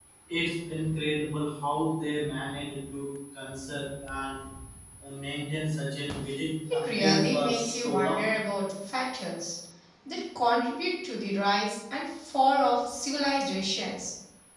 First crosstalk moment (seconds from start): 6.7 s

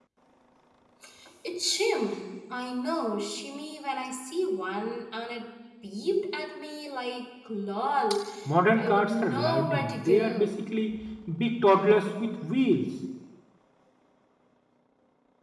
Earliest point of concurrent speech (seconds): 8.8 s

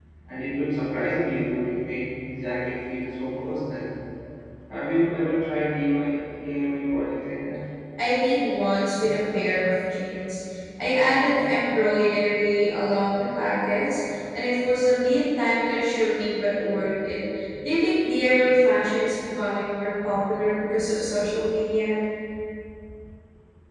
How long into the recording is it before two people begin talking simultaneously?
none

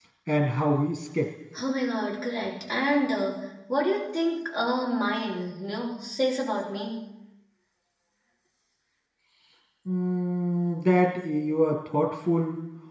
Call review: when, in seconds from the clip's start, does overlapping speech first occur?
none

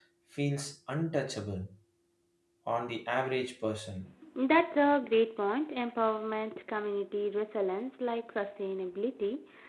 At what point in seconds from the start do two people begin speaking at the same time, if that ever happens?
none

